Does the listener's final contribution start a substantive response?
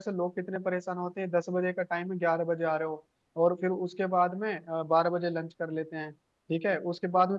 No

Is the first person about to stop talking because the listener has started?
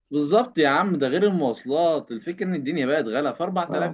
No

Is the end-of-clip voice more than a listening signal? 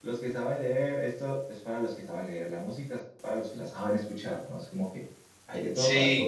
No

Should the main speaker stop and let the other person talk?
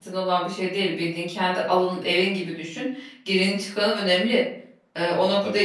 No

